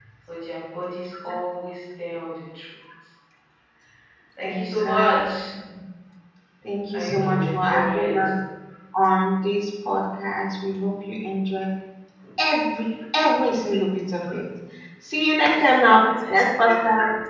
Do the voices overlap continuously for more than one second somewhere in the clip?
Yes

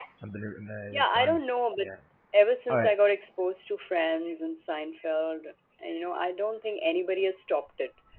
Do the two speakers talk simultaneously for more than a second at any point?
No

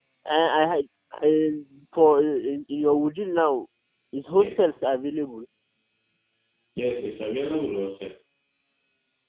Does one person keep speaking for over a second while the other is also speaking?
No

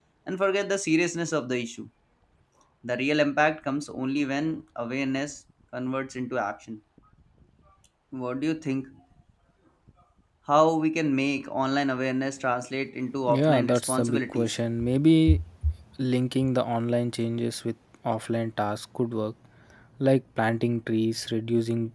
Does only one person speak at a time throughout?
No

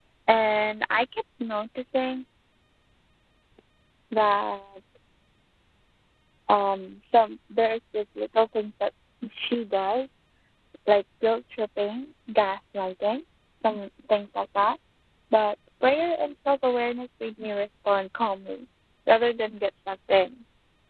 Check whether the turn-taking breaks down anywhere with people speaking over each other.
No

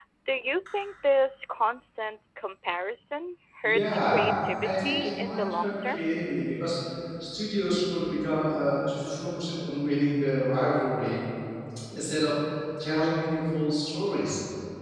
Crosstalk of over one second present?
Yes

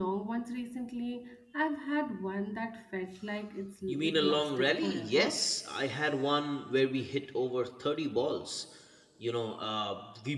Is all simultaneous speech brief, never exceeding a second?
No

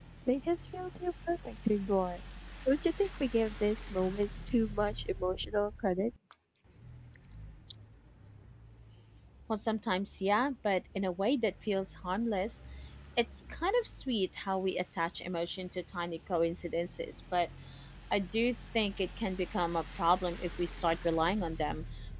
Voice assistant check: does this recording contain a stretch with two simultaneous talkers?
No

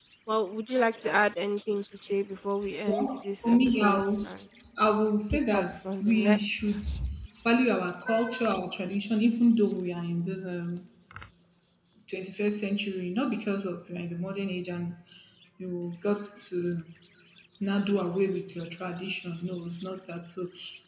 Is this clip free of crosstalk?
No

